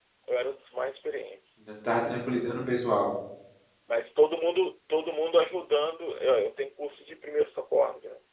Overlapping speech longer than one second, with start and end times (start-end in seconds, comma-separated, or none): none